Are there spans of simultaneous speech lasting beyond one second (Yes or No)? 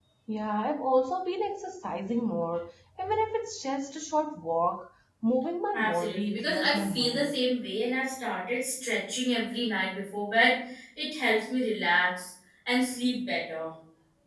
Yes